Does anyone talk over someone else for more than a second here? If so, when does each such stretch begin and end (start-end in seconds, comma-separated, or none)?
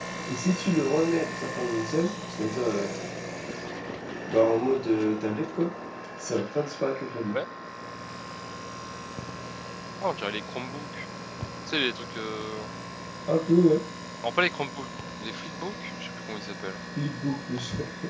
none